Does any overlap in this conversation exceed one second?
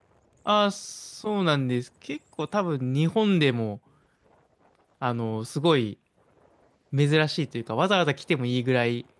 No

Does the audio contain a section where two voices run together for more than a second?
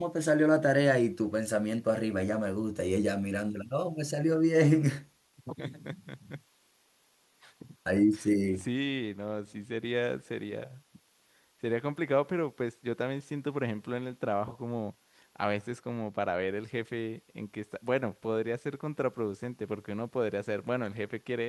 No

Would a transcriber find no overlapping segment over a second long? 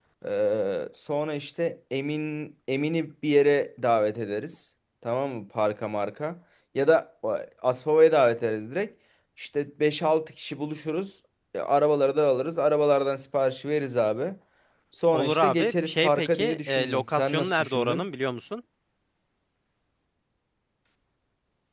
No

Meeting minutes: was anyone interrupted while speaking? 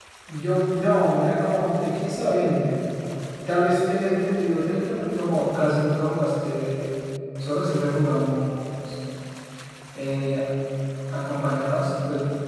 No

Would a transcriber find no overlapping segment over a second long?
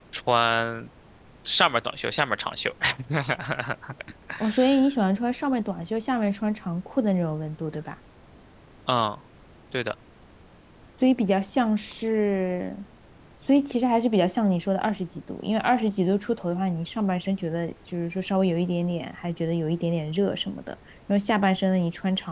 Yes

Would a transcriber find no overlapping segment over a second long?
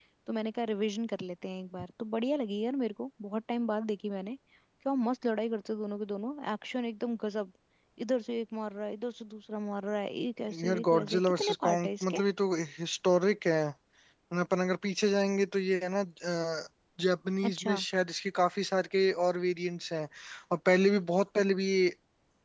No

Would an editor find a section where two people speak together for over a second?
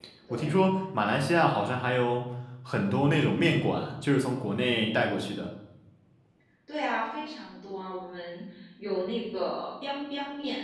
No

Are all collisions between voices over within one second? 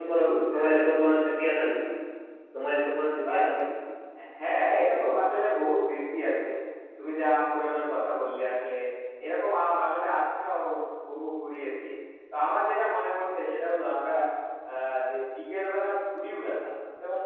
No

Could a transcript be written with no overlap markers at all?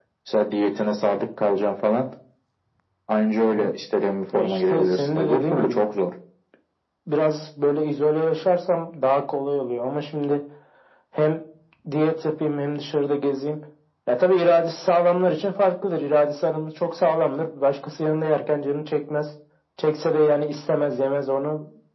No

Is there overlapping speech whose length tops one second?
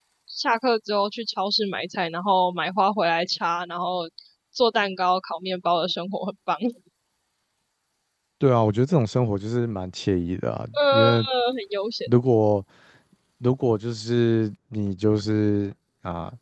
No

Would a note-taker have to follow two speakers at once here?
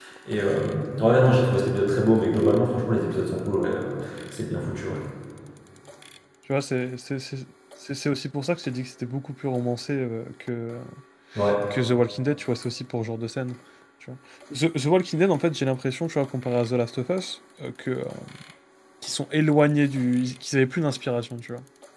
No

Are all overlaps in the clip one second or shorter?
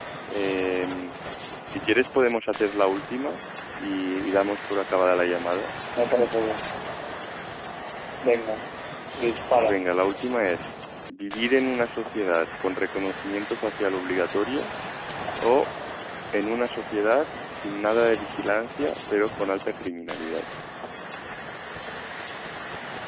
Yes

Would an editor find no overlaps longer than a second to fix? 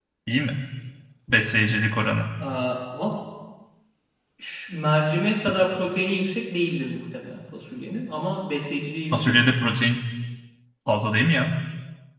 Yes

